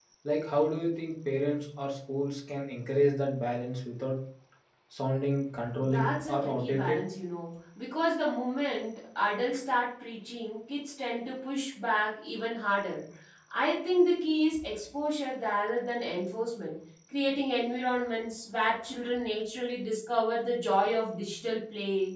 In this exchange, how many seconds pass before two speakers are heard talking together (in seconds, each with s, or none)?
5.8 s